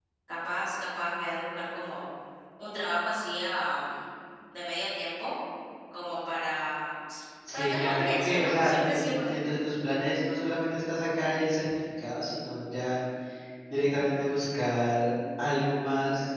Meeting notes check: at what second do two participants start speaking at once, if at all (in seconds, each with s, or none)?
7.5 s